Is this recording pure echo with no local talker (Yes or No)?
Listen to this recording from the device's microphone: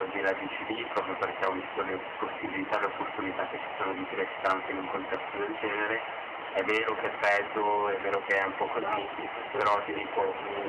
No